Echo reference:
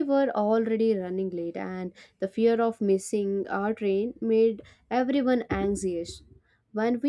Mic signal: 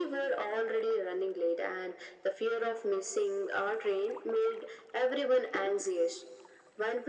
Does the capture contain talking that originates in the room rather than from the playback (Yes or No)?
No